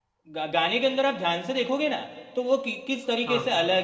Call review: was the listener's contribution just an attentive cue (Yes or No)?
Yes